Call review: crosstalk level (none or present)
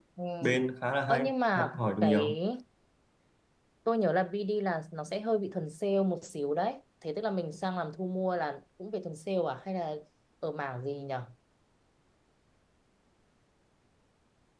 present